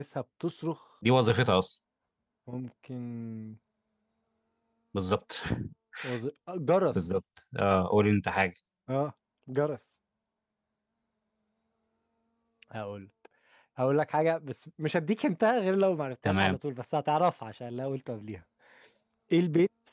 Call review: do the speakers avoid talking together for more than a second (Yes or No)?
Yes